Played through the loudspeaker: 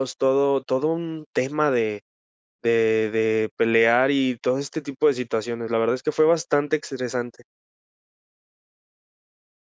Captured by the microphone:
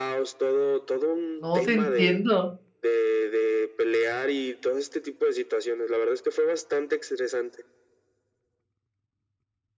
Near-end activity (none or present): present